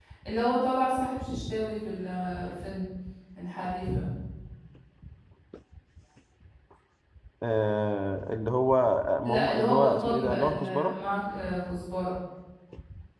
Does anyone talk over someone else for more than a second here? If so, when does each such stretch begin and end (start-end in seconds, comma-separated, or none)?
9.2-11.0